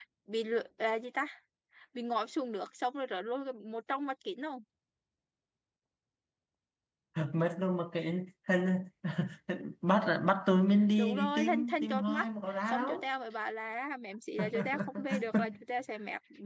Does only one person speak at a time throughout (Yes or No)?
No